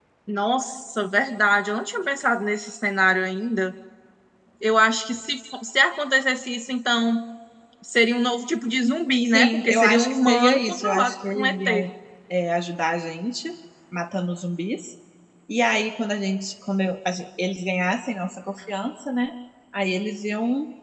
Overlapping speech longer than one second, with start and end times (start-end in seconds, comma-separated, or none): 9.3-11.8